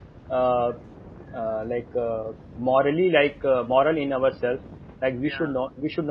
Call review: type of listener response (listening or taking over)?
listening